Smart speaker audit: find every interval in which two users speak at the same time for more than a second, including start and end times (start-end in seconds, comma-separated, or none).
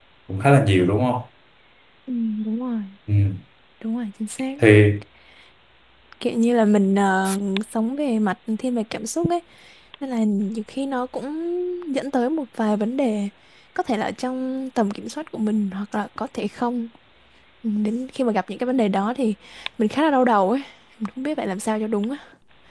none